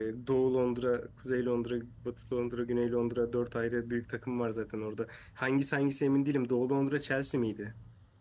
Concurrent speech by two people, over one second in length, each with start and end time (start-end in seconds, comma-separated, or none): none